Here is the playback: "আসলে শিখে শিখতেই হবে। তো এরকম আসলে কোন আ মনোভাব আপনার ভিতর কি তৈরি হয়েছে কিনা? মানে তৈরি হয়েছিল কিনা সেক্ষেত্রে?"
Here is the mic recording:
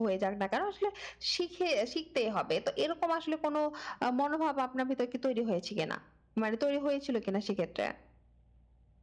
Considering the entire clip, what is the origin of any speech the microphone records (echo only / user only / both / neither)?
echo only